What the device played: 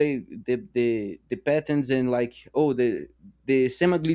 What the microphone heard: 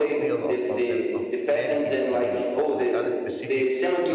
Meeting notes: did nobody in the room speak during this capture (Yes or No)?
No